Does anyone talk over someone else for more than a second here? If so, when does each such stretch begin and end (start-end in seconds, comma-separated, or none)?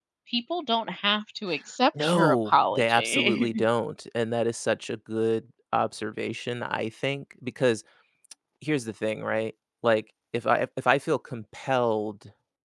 2.0-3.7